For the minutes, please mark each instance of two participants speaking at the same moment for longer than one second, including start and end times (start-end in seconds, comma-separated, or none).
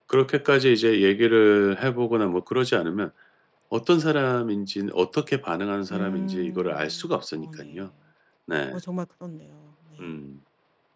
5.9-7.8